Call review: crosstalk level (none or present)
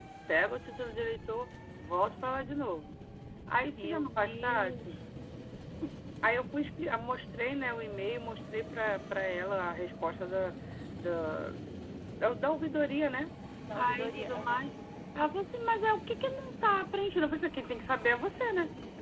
present